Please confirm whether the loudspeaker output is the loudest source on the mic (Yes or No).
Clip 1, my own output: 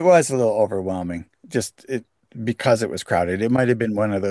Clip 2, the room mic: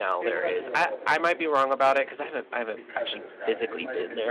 No